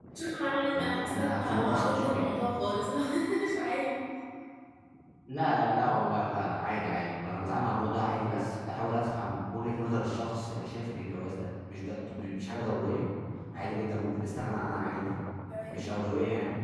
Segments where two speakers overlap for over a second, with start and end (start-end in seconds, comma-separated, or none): 0.7-2.4